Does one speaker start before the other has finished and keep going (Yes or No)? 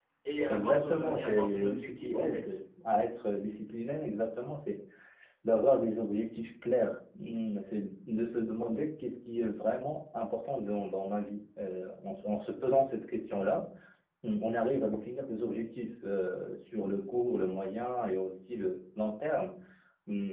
Yes